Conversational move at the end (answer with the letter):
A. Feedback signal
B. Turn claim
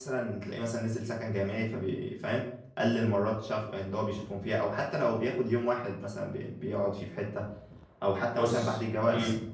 A